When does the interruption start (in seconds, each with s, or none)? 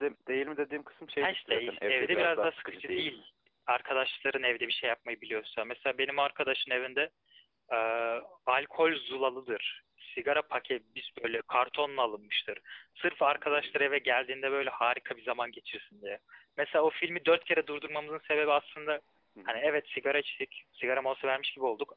1.2 s